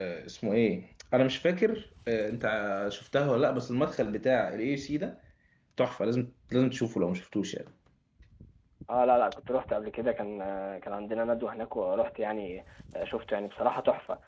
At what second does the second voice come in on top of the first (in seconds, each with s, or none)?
none